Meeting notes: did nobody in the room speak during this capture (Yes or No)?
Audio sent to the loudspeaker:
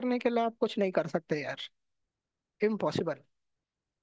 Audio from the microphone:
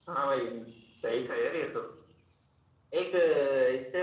No